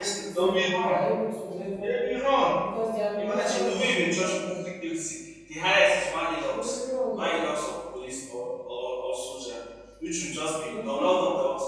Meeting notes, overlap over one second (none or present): present